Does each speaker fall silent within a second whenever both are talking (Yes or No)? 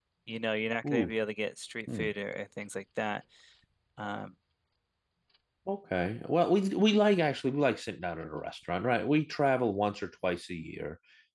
Yes